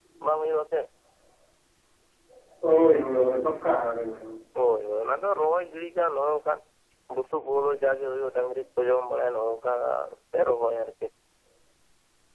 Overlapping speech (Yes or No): No